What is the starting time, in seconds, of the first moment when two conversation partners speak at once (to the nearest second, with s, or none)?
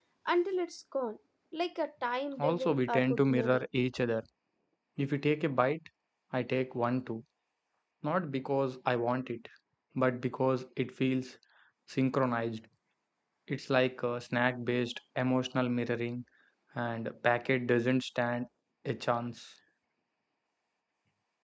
2 s